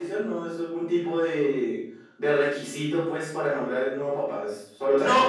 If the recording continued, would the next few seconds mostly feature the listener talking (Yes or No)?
Yes